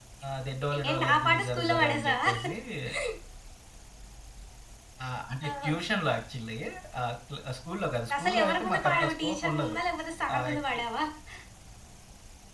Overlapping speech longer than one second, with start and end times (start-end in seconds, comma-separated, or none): 0.9-2.3, 8.2-9.8